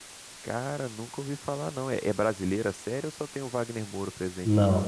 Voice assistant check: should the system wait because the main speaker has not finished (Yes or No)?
No